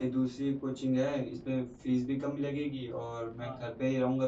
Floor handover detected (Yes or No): No